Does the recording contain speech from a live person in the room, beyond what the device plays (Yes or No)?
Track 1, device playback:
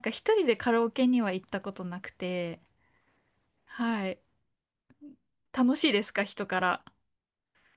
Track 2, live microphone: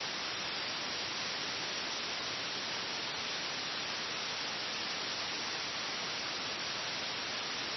No